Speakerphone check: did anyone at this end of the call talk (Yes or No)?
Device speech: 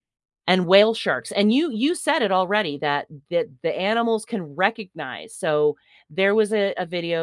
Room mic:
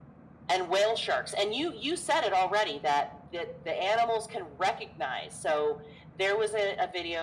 No